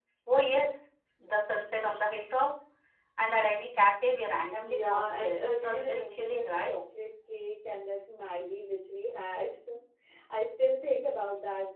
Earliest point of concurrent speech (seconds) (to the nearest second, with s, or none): 5 s